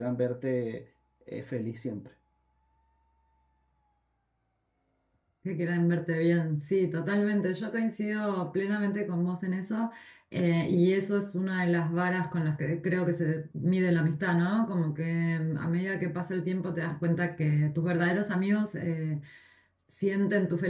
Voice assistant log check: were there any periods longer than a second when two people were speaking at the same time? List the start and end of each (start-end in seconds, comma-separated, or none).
none